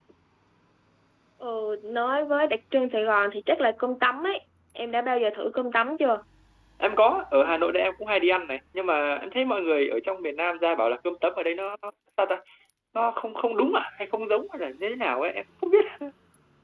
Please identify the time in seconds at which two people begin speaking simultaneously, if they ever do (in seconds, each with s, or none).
none